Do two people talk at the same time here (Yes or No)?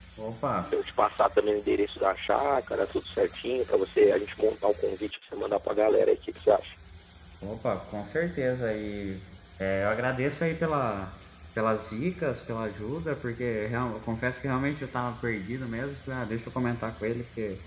No